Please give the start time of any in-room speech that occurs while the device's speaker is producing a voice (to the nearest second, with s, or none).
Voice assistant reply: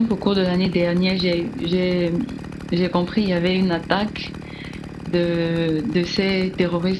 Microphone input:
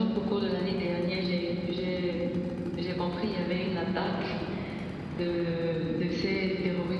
none